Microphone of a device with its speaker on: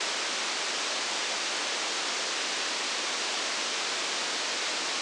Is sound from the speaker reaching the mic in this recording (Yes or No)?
No